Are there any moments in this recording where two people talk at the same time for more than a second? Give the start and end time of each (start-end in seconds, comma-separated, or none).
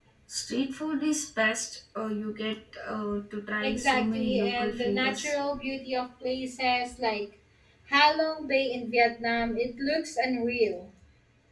3.6-5.4